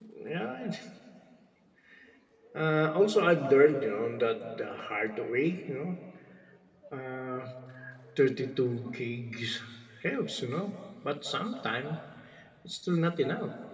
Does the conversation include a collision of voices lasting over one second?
No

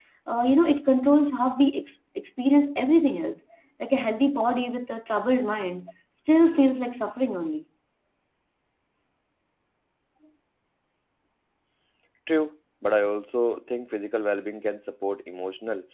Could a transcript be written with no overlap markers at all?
Yes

